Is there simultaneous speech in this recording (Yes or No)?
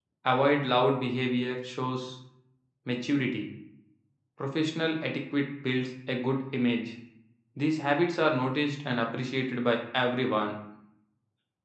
No